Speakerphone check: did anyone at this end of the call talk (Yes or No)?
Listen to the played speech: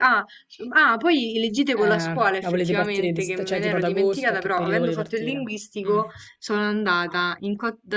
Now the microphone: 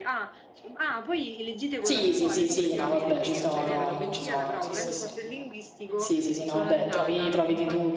Yes